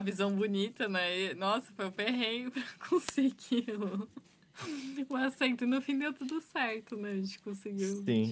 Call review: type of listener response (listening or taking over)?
taking over